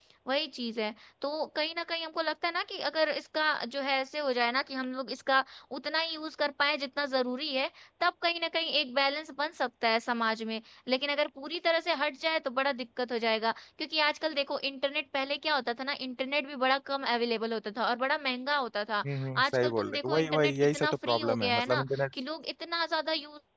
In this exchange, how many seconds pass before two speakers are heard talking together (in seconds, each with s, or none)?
19.5 s